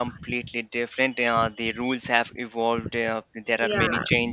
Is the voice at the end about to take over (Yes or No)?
No